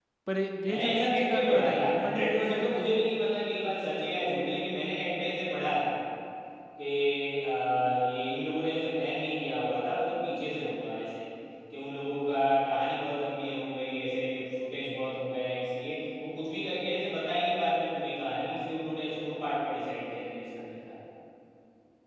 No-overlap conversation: No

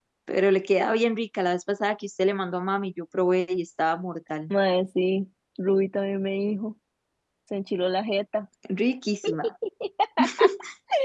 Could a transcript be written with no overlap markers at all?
Yes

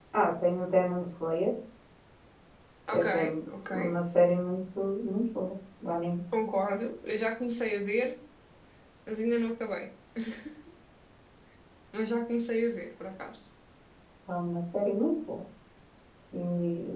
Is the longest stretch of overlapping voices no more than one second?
Yes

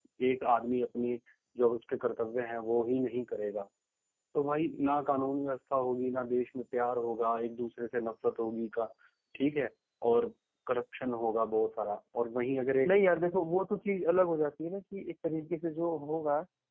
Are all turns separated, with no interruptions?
Yes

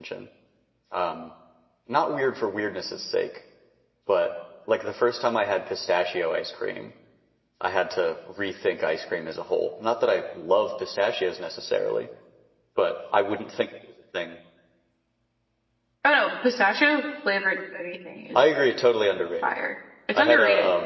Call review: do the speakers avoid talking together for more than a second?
Yes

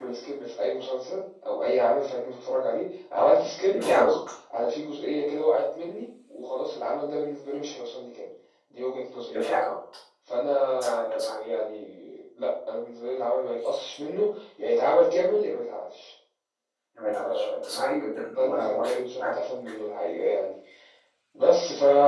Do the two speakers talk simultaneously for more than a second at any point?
Yes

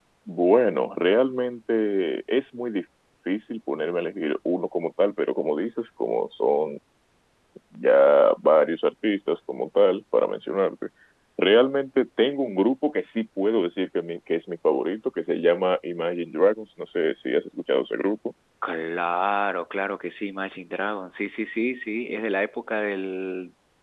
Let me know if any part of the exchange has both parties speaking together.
No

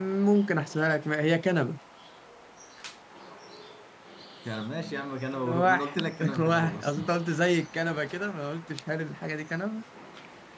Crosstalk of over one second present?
Yes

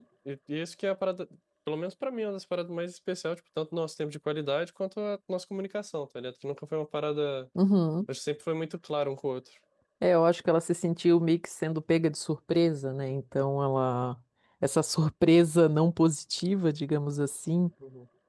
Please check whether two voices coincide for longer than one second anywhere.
No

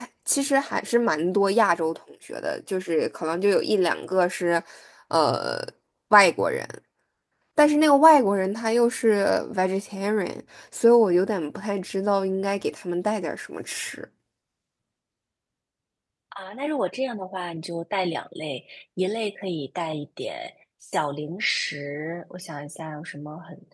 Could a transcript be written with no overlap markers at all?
Yes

